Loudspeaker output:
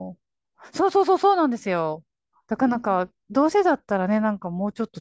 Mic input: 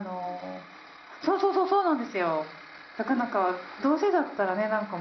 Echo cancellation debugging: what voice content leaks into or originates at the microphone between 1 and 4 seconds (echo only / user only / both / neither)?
echo only